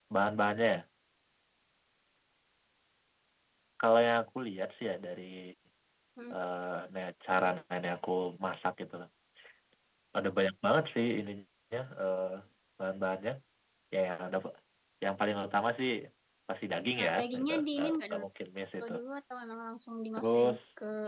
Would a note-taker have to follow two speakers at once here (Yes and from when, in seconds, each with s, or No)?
Yes, from 17.0 s